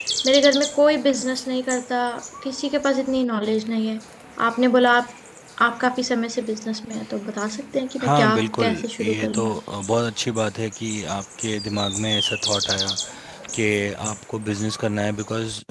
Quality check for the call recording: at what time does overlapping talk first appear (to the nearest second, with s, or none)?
8 s